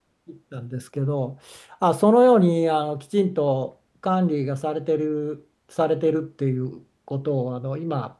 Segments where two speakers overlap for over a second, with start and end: none

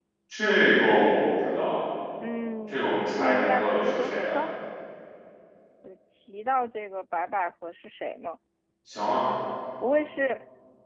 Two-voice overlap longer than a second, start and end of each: 2.7-4.4

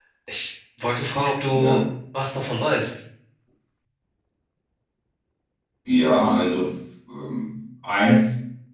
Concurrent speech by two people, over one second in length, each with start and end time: none

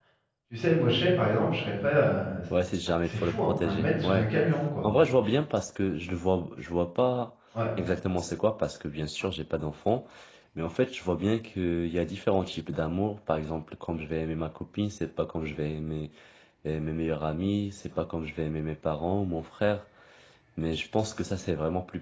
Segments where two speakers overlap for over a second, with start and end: 3.0-4.3

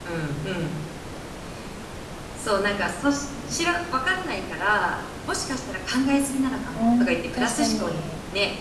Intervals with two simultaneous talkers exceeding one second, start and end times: 6.8-8.0

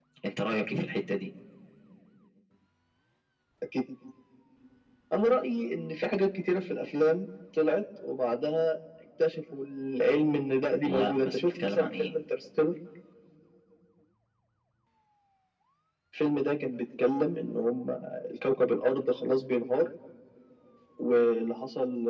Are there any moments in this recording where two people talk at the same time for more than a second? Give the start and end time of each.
10.8-12.1

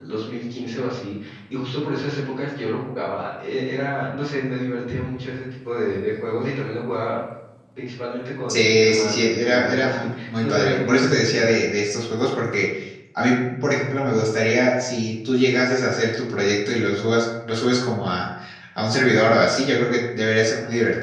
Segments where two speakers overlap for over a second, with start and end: 8.5-11.5

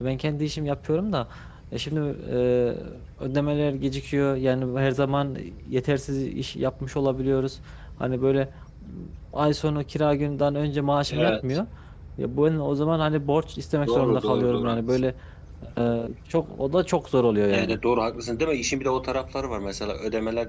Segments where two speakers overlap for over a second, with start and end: 13.8-15.1

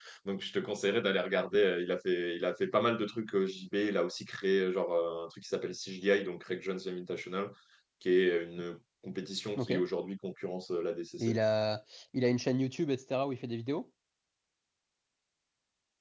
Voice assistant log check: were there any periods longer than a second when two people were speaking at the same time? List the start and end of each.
none

